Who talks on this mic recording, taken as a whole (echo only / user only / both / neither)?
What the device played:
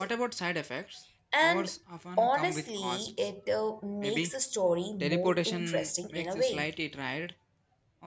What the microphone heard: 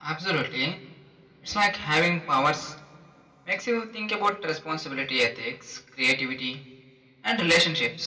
user only